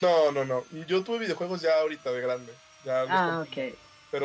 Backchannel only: Yes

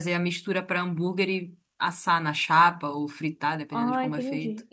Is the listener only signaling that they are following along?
No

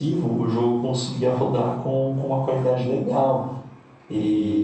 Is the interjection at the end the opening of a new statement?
No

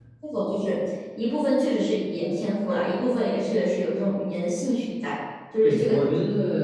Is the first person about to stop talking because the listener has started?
Yes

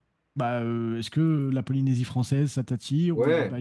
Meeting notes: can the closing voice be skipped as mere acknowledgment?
No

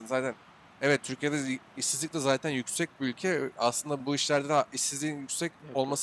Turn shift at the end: No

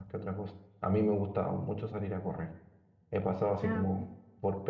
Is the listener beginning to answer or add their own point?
No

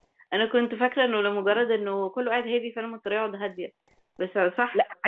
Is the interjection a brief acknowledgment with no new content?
Yes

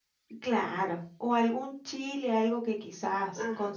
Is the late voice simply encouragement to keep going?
Yes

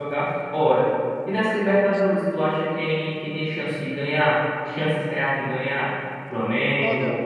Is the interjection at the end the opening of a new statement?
No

